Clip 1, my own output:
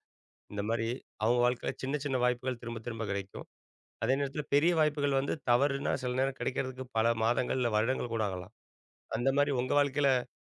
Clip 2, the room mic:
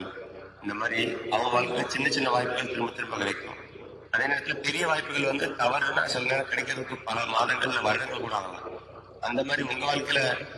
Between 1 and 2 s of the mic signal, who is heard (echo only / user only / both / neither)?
both